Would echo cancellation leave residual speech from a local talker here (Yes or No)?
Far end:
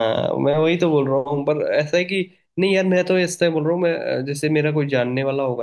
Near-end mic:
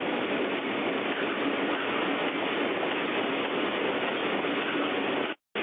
No